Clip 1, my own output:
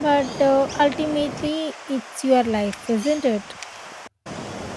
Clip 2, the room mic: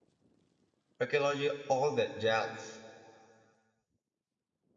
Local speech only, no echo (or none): archaeology, all that jazz.